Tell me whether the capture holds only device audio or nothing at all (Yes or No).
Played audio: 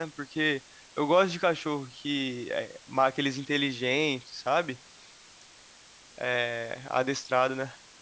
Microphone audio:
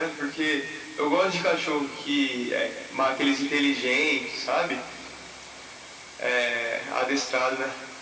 Yes